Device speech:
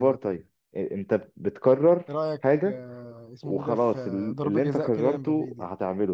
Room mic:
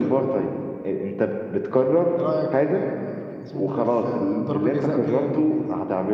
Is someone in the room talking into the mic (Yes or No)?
No